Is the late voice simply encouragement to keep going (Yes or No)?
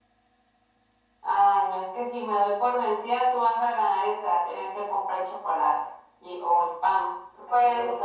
No